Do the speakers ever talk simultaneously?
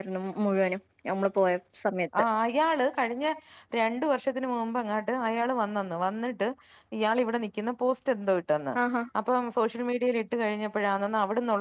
No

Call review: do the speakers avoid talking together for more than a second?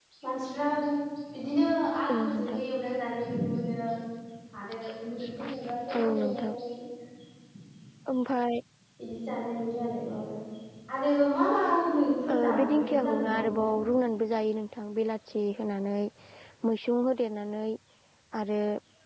No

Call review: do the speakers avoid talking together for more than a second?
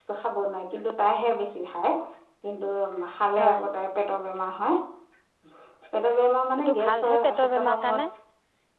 No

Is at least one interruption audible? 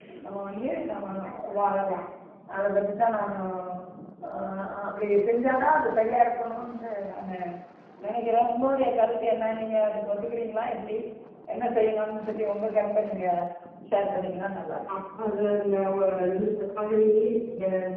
No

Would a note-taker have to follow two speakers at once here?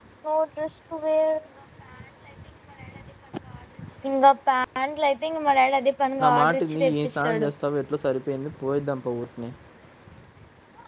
Yes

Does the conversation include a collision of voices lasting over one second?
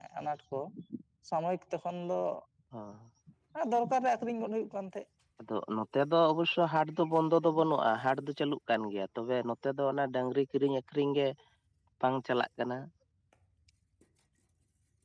No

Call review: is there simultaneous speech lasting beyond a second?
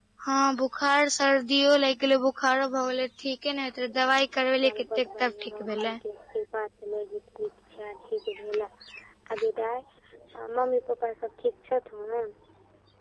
Yes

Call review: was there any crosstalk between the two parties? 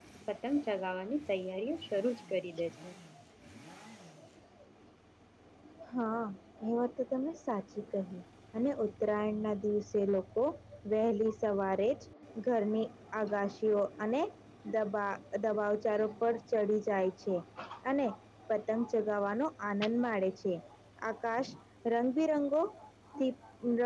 No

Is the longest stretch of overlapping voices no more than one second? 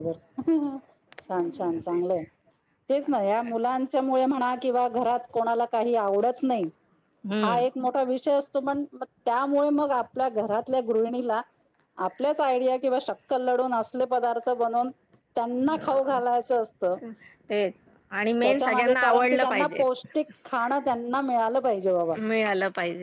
No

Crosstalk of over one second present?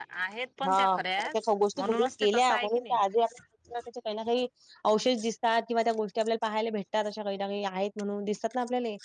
Yes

